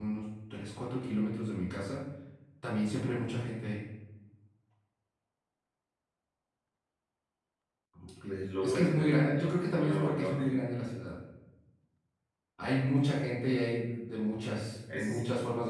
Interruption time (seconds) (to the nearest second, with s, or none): 8 s